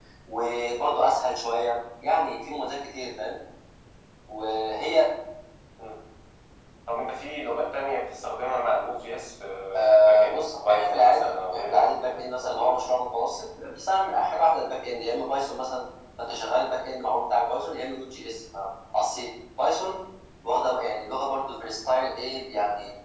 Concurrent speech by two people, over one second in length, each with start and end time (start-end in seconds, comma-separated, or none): 9.7-12.8